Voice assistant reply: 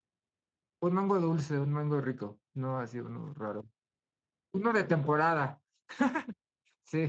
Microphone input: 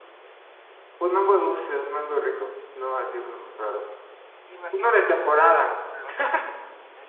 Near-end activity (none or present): present